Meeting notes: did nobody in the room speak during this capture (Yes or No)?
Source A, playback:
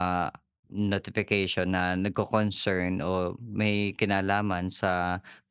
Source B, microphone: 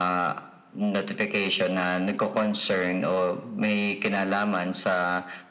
Yes